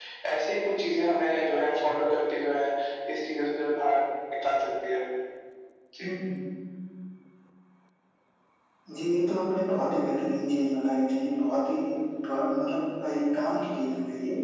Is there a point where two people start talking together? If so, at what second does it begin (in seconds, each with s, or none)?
none